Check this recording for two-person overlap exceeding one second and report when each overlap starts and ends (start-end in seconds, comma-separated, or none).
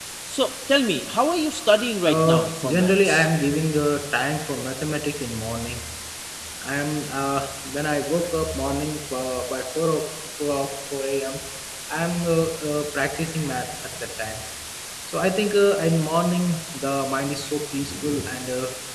2.1-3.3